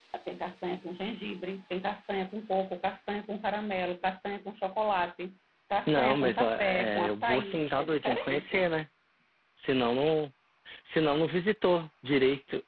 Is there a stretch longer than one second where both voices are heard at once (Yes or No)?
Yes